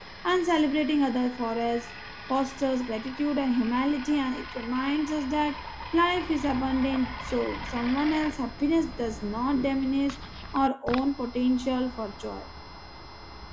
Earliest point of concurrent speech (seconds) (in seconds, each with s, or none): none